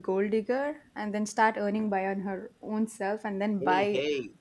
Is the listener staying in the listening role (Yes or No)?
No